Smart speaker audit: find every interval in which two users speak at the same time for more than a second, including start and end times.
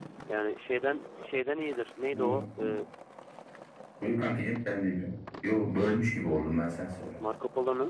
none

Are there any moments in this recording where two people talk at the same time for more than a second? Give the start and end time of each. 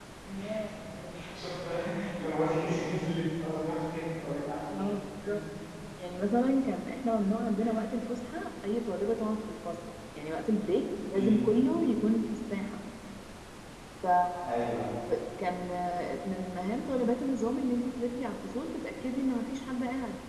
none

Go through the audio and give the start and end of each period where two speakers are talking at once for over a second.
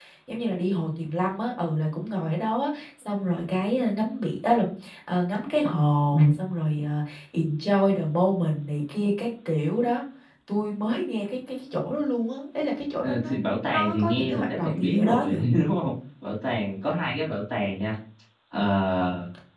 13.0-15.4

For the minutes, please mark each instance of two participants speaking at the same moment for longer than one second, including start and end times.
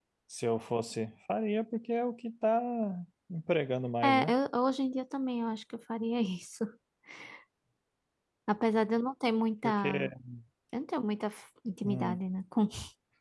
none

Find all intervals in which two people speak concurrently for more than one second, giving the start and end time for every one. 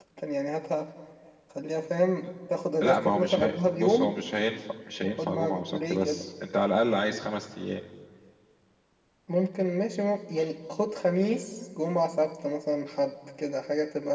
2.8-4.1, 5.0-6.2

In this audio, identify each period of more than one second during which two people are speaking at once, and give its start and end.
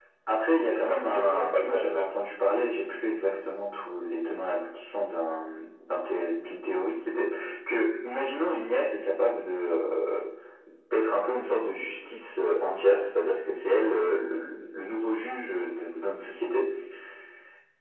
0.7-2.2

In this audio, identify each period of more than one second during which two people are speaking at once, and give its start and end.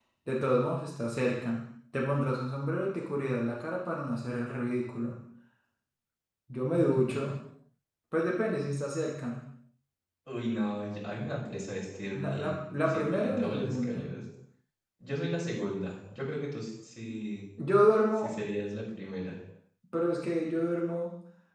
12.2-14.1

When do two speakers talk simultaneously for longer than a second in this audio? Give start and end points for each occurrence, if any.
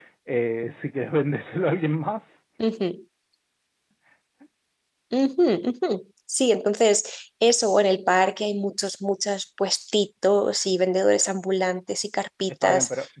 none

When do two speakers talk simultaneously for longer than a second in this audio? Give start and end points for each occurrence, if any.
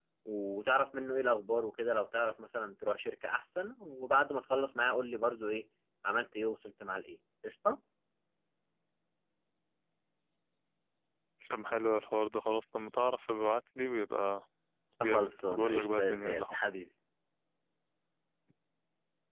15.1-16.6

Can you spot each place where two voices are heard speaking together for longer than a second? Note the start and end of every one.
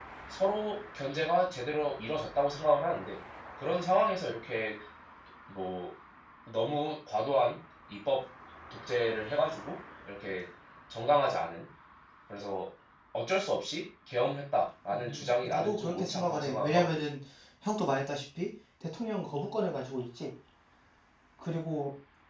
14.9-17.0

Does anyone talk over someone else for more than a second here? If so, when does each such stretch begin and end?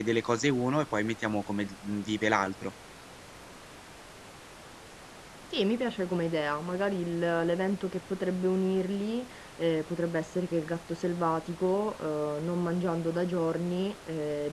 none

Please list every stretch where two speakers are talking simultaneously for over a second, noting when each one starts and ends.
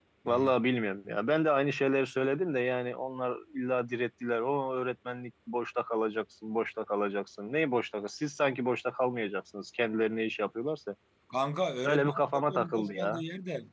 11.8-13.2

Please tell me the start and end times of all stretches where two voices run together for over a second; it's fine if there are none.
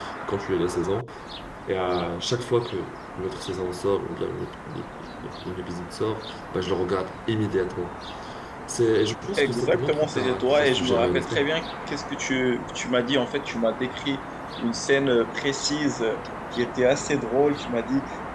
9.4-11.4

